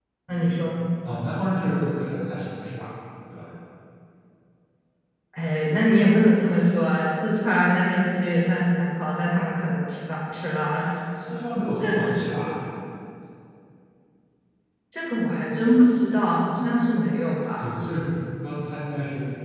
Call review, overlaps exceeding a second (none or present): none